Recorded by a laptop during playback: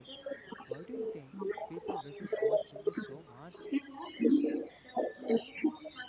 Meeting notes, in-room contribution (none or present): present